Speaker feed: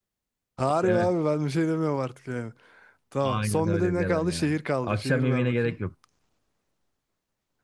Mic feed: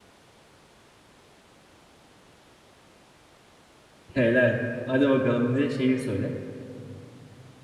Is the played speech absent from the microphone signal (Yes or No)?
Yes